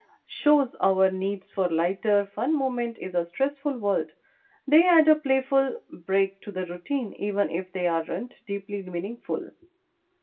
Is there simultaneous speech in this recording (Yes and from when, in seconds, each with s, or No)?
No